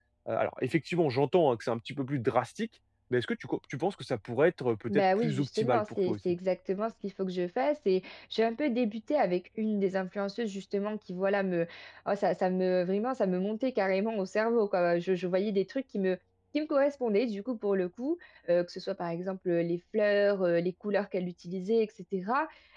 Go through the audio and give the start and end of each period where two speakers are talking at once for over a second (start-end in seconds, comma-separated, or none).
4.9-6.2